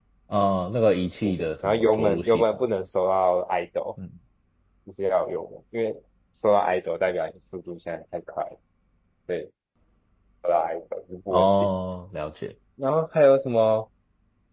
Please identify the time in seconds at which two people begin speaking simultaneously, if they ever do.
1.2 s

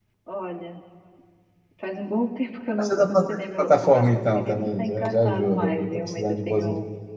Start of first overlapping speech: 2.8 s

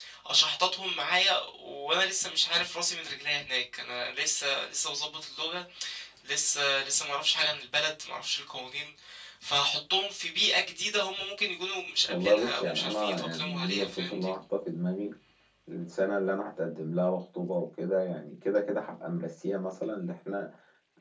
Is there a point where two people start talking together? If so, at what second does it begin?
12.1 s

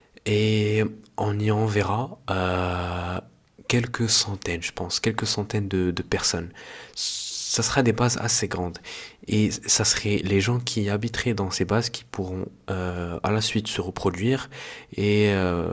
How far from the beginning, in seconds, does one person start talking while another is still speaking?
none

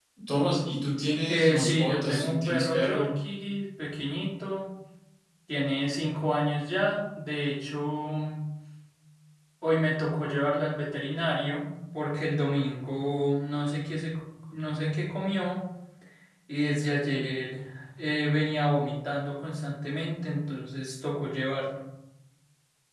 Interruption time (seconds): 1.3 s

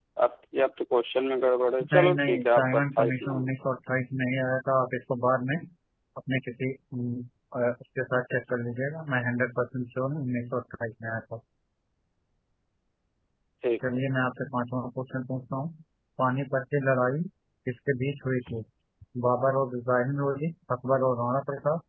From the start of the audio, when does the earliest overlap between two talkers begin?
1.8 s

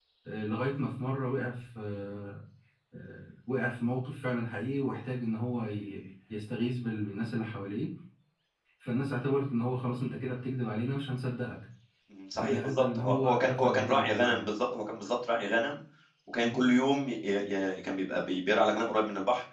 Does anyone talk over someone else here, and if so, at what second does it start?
12.4 s

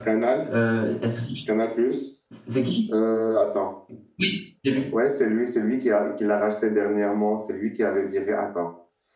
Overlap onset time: none

